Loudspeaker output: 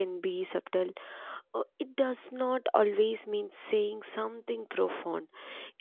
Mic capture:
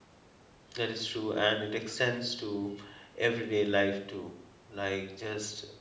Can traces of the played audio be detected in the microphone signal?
No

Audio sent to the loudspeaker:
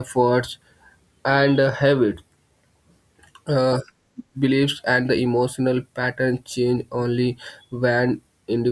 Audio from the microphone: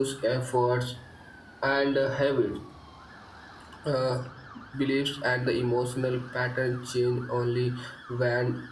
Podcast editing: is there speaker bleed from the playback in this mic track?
Yes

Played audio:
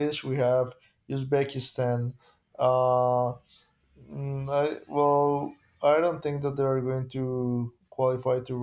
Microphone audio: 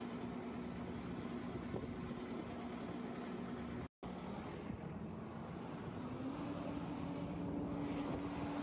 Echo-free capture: Yes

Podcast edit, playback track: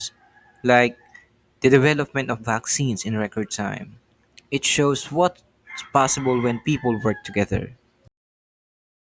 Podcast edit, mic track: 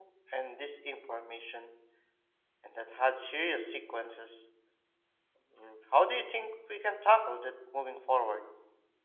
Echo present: No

